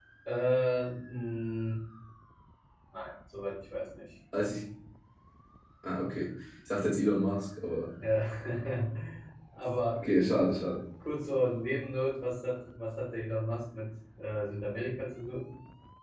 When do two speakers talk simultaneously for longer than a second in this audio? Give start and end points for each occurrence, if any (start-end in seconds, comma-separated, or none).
none